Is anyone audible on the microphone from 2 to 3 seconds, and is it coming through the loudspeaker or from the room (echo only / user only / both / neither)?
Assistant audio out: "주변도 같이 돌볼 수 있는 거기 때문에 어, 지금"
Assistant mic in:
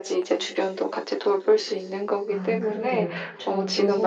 both